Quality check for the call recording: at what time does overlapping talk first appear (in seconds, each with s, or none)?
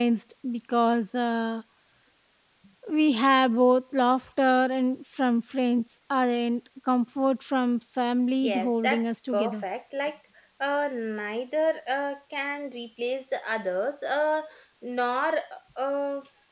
8.4 s